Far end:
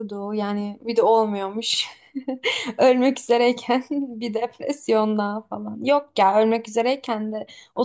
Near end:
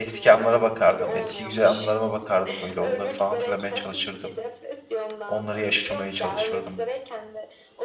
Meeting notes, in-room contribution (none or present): present